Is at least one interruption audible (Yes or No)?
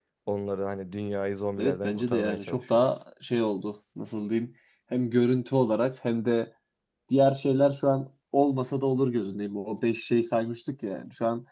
Yes